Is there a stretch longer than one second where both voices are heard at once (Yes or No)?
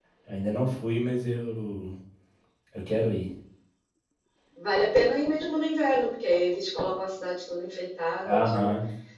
No